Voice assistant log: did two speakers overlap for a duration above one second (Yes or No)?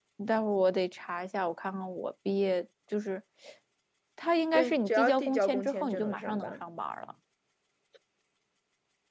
Yes